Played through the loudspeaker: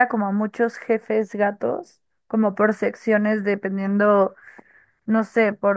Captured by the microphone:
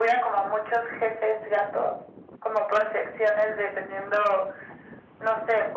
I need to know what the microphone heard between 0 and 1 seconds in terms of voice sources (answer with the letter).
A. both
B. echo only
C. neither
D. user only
B